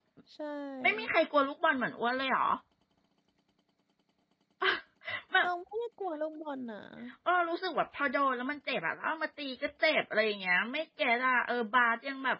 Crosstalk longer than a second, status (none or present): none